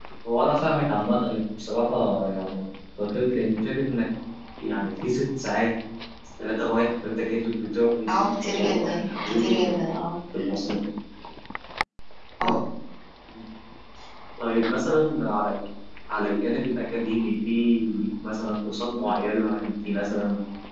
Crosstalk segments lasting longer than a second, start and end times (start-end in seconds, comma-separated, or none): 8.1-9.9